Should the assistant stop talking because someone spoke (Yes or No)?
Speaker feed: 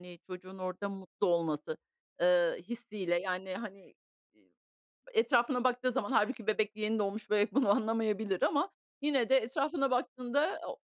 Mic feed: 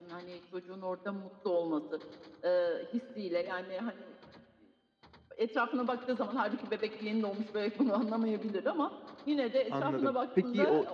Yes